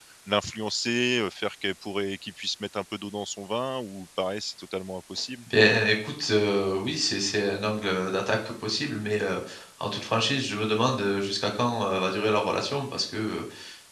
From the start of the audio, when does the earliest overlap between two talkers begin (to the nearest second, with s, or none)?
none